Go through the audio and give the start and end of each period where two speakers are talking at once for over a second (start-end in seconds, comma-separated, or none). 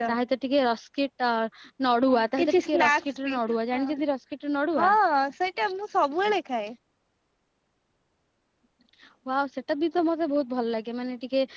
2.1-3.3